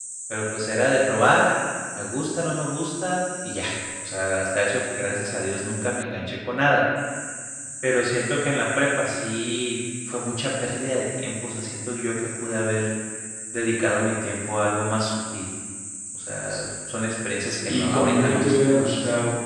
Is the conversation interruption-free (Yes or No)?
No